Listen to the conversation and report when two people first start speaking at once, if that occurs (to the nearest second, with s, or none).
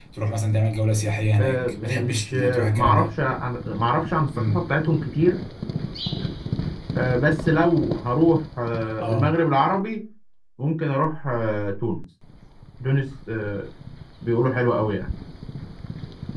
1 s